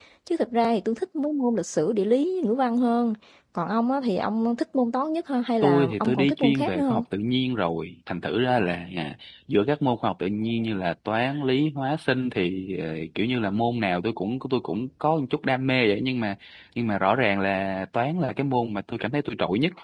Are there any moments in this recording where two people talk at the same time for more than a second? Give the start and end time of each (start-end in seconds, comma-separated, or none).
5.6-7.0